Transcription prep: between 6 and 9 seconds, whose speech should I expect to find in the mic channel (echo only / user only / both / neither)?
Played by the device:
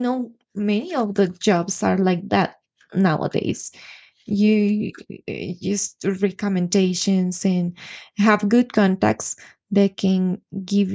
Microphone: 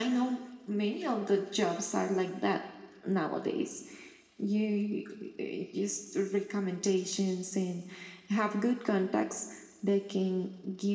echo only